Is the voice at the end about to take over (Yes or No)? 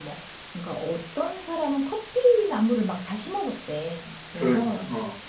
No